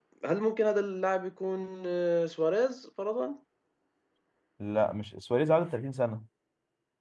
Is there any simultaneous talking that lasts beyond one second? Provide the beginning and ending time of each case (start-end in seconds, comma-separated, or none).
none